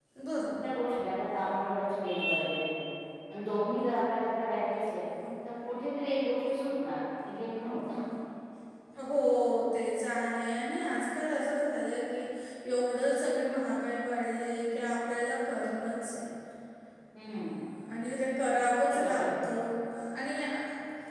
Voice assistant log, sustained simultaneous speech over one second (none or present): none